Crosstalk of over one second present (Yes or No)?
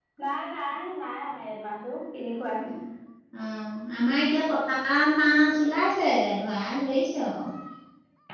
No